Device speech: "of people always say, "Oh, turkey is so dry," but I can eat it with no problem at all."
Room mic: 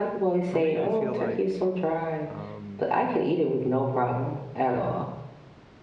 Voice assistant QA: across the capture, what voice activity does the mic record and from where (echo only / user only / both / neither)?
both